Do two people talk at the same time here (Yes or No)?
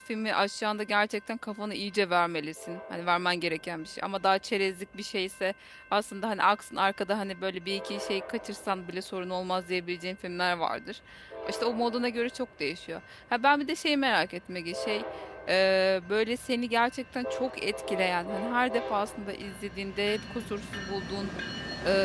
No